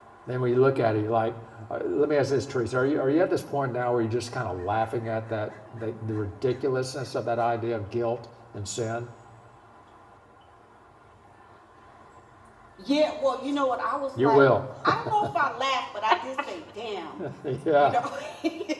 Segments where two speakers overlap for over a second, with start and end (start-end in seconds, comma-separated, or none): none